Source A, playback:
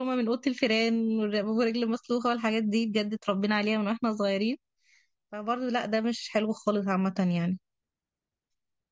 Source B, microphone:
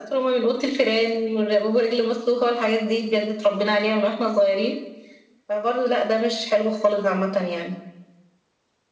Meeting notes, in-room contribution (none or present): none